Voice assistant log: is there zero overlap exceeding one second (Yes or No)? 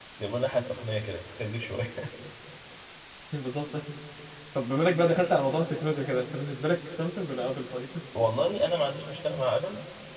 Yes